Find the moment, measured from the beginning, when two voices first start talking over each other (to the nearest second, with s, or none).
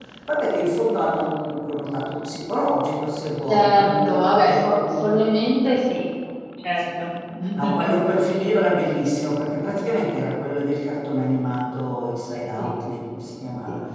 3 s